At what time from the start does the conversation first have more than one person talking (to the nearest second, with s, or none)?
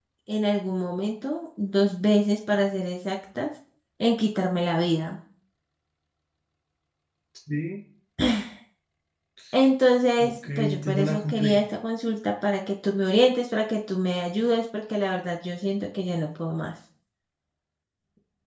10 s